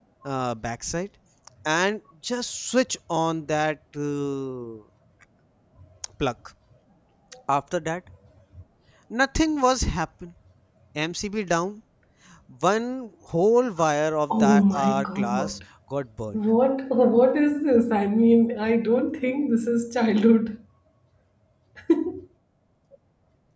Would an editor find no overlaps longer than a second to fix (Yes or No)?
No